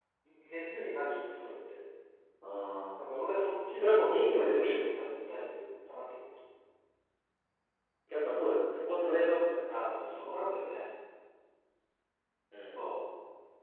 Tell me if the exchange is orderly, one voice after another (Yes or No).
No